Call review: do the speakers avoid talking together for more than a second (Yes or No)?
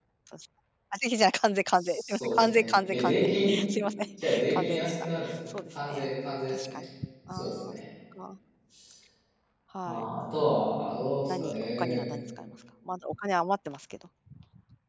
No